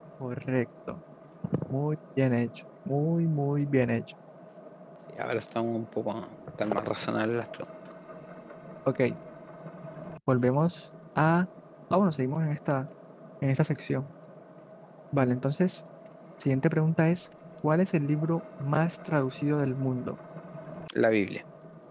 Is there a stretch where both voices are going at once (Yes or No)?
No